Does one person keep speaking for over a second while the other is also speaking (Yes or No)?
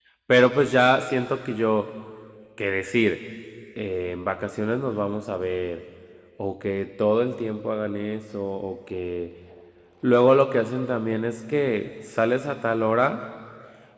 No